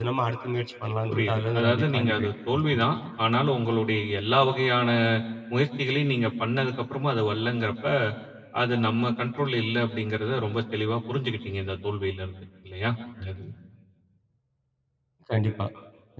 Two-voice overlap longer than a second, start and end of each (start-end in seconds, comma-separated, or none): 1.1-2.8